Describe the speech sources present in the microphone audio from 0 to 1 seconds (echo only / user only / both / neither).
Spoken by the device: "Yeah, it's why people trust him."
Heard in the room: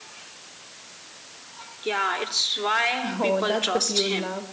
neither